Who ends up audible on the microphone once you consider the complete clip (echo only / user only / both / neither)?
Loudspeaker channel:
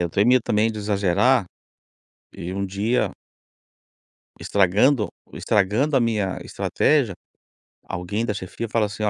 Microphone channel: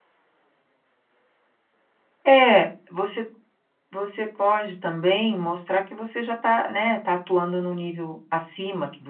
user only